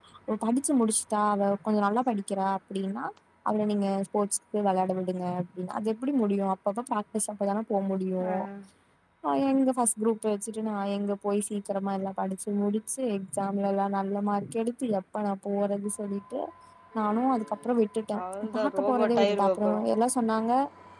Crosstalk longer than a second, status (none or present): present